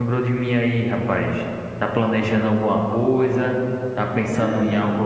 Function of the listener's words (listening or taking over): listening